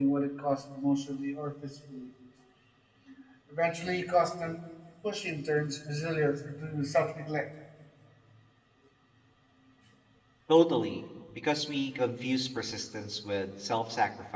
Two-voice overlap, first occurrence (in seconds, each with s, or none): none